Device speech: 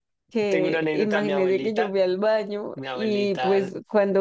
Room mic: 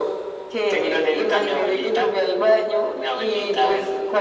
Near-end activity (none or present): none